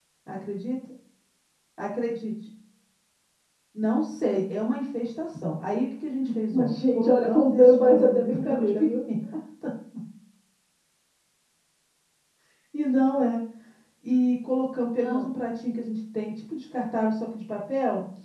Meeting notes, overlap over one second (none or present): present